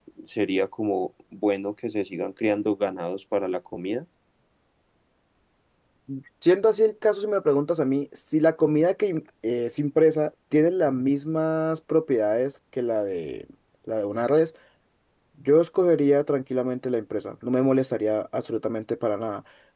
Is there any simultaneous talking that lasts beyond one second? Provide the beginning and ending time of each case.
none

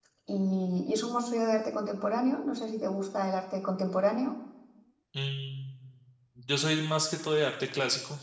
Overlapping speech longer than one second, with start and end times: none

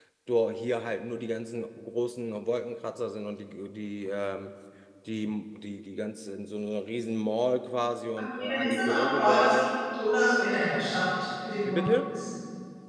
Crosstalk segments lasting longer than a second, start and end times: 8.2-9.7

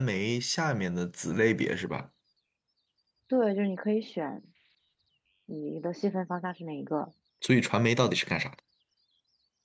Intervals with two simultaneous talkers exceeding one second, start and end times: none

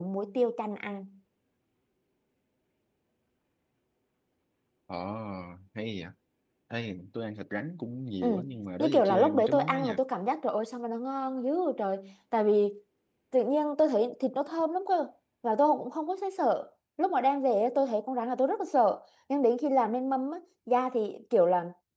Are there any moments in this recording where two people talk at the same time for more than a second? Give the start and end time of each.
8.8-10.0

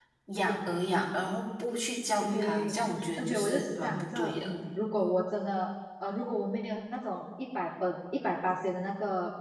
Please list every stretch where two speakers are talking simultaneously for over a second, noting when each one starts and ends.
3.2-4.5

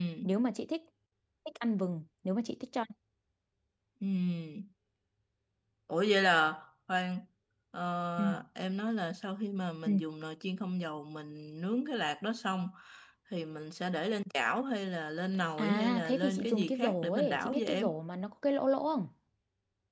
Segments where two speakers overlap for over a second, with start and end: 15.6-17.9

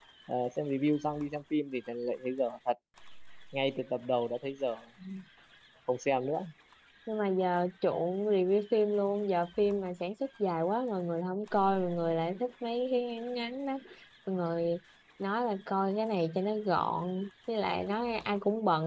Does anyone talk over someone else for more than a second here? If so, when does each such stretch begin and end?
none

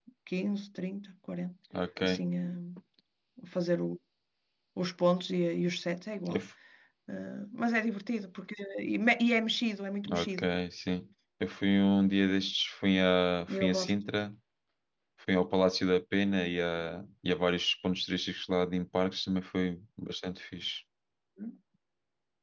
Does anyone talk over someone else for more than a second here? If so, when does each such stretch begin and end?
none

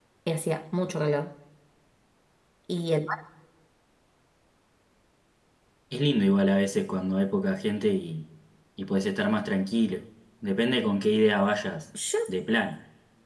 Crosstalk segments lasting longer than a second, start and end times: none

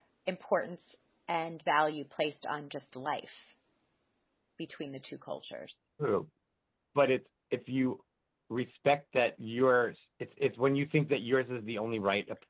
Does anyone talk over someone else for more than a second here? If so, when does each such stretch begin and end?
none

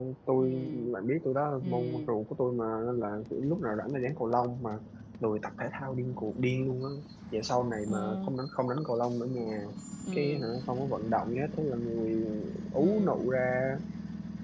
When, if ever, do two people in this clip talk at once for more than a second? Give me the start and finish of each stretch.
none

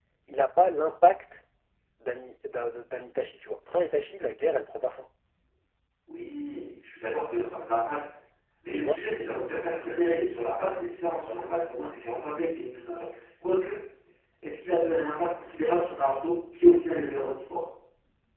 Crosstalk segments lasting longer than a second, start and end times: none

